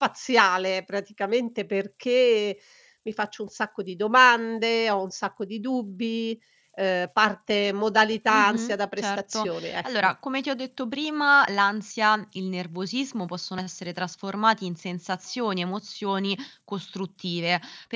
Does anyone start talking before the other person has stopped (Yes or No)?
Yes